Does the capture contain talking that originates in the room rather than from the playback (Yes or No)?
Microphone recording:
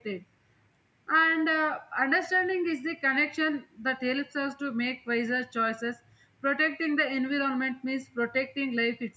Yes